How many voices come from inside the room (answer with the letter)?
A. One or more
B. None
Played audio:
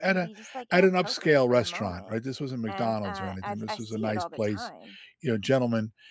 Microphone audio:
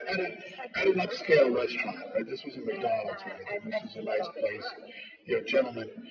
B